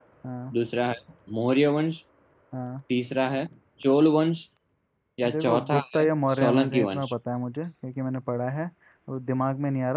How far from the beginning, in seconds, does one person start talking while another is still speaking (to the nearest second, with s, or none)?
5 s